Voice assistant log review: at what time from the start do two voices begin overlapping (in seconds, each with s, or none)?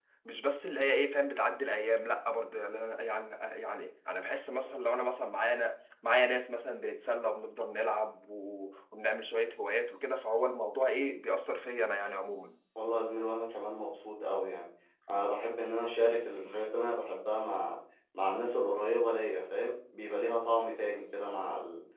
none